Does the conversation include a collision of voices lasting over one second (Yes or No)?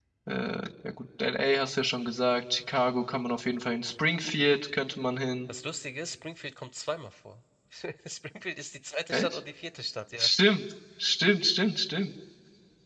No